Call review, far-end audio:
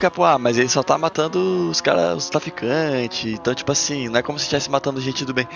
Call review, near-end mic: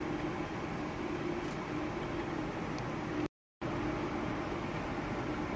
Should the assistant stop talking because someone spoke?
No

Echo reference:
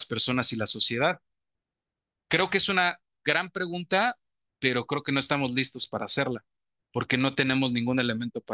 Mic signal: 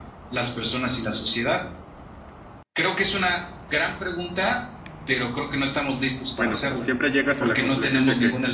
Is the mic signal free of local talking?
No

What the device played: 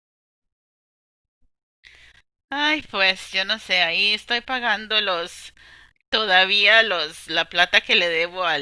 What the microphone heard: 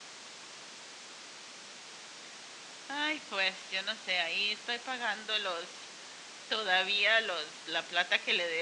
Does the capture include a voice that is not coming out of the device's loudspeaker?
No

